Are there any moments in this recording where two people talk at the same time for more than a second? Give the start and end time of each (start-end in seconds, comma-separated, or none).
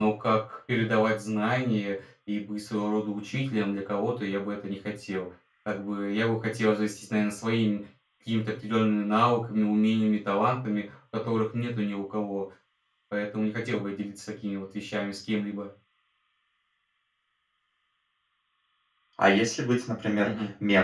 none